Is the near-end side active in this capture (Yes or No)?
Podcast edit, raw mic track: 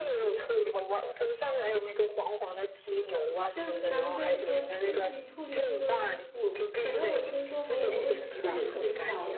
Yes